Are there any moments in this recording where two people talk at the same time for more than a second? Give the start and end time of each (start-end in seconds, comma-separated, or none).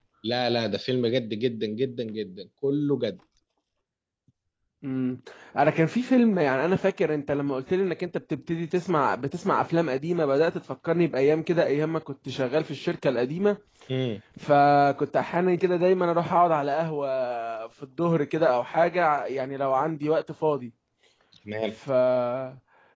none